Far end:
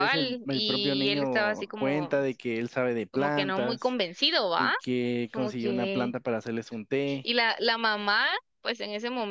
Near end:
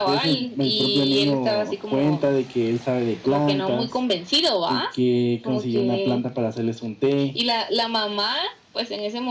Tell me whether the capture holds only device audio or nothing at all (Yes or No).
Yes